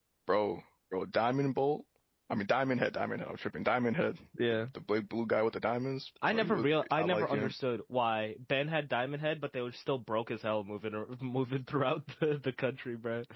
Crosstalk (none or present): present